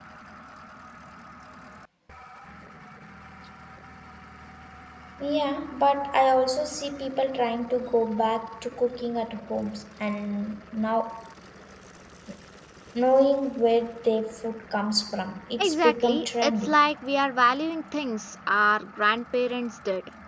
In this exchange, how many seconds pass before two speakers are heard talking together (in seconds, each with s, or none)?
15.6 s